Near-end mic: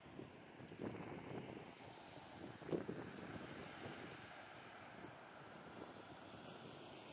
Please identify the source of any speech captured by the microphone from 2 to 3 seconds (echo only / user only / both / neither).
neither